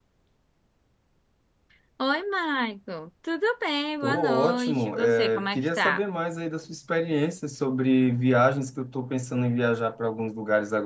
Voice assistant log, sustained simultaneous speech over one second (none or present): present